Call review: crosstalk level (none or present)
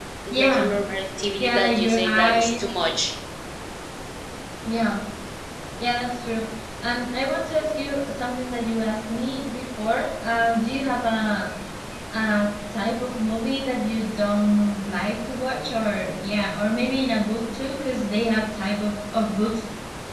present